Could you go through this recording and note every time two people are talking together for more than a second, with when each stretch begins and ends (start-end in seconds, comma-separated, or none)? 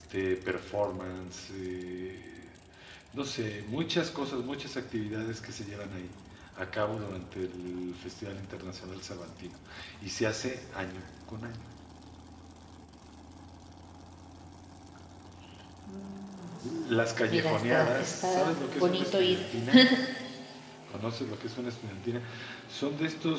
17.3-19.4